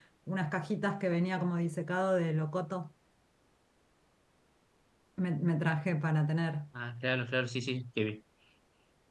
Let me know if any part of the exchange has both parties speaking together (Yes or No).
No